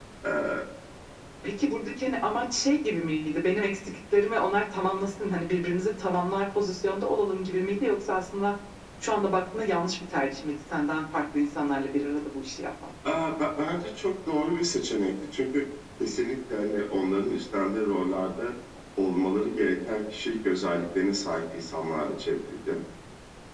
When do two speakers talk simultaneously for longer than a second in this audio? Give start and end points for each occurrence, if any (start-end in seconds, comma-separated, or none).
none